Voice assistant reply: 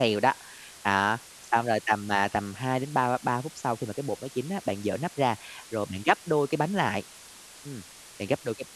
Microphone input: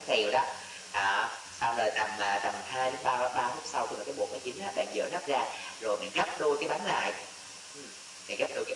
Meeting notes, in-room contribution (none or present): none